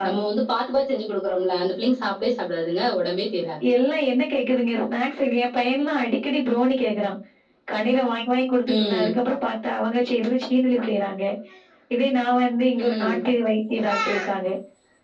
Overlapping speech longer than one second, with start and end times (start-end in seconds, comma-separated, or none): none